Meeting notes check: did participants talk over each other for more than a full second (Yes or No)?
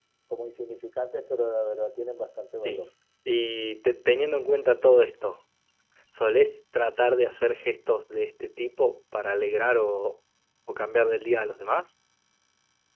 No